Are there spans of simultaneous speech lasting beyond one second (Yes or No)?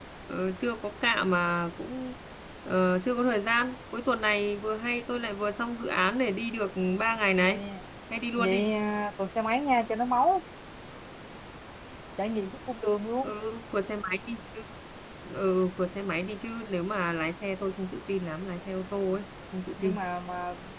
No